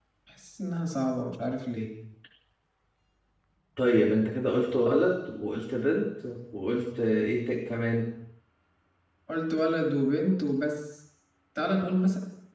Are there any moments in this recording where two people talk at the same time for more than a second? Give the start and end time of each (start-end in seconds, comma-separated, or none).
none